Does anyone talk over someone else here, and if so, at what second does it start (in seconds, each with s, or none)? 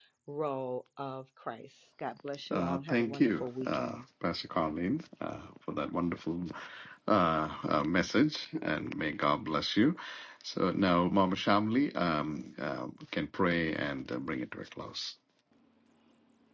2.5 s